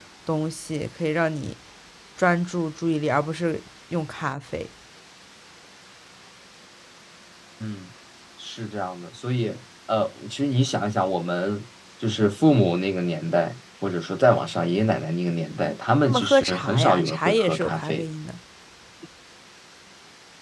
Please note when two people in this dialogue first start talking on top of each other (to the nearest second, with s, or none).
16 s